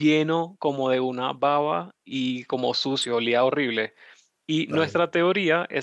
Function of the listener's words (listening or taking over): listening